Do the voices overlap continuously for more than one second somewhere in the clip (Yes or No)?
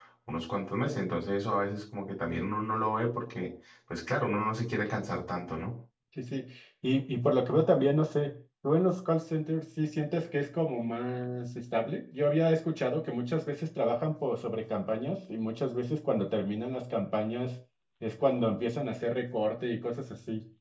No